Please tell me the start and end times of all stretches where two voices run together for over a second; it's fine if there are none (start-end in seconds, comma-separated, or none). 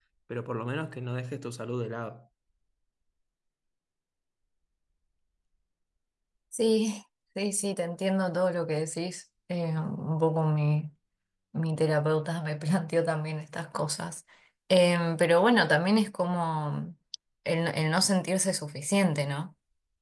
none